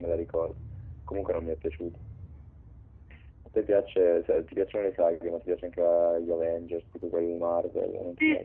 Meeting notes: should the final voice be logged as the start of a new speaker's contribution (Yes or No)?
Yes